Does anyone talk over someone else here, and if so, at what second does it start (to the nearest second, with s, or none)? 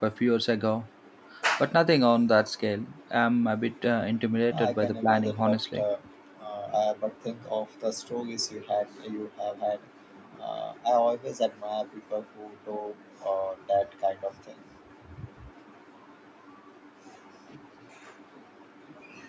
5 s